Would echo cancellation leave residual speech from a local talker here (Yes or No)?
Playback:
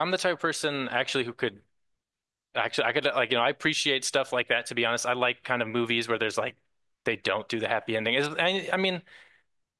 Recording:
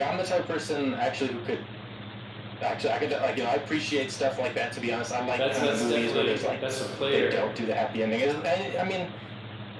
Yes